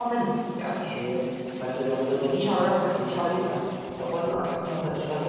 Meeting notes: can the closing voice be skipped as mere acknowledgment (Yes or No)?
No